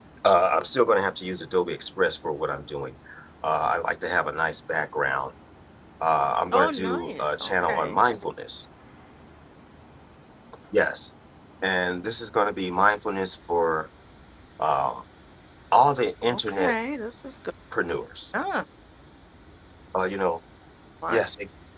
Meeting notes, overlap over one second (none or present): present